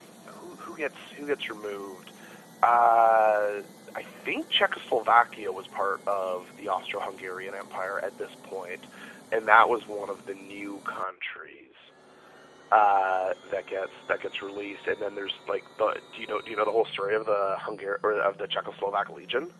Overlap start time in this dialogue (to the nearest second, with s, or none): none